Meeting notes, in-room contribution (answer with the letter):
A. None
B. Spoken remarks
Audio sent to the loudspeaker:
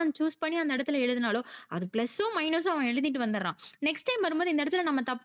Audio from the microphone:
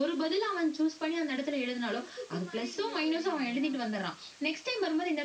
B